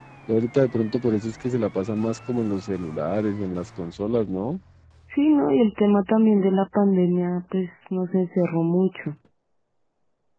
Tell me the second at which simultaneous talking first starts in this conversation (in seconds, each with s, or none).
none